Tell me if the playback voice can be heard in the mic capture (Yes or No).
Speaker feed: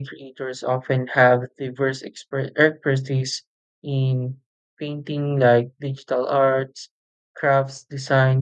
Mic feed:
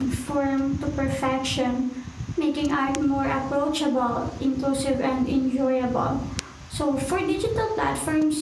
No